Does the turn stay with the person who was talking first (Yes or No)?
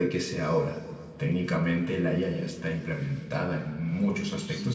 No